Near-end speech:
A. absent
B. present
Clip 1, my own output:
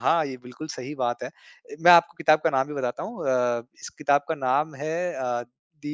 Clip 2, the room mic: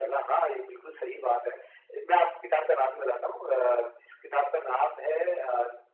A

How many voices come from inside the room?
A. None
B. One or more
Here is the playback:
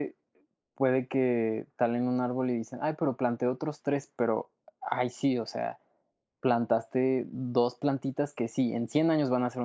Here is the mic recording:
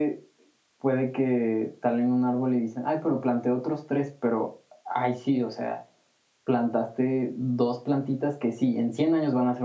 A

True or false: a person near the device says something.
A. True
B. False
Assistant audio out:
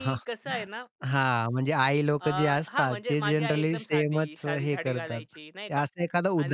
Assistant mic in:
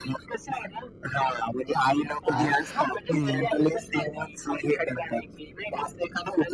A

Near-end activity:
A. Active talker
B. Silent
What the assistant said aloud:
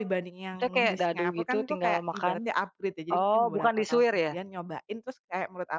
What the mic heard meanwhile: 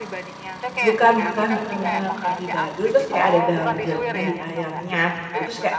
A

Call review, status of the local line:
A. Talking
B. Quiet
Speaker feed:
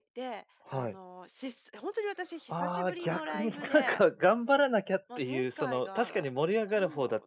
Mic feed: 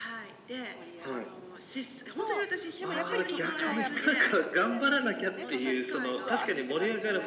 A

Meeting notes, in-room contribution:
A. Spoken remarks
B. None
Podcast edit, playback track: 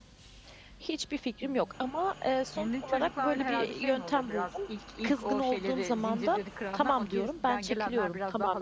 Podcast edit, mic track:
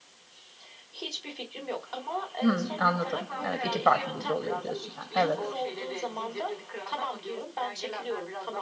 A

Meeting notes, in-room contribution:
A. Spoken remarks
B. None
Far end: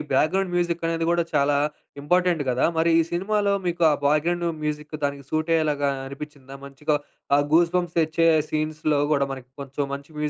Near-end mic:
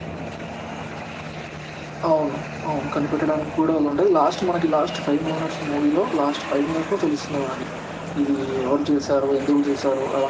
A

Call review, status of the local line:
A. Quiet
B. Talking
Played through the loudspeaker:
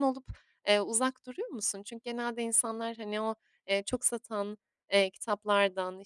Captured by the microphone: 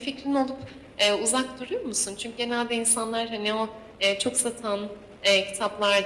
A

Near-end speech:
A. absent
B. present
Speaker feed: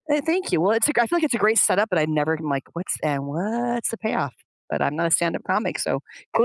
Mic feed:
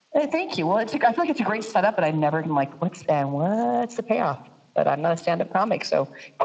A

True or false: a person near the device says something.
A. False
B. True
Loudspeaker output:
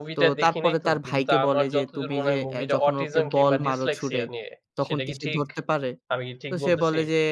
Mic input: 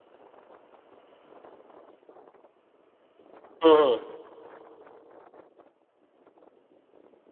B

